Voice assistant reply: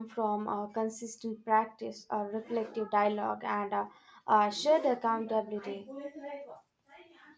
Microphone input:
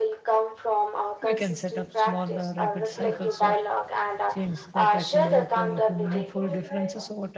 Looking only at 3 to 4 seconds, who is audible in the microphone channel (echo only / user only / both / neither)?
both